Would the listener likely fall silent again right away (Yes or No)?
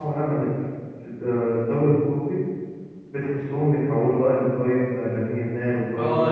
No